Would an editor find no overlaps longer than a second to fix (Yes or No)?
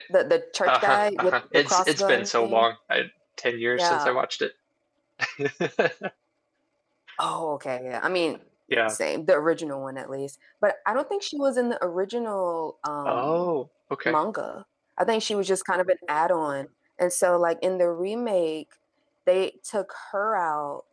No